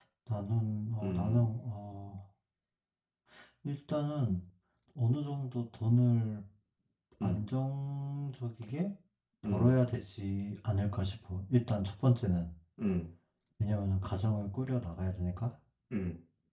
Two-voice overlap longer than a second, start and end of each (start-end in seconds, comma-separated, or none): none